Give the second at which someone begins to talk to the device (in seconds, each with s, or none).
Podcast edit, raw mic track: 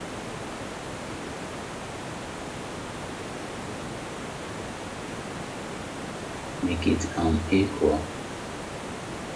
6.6 s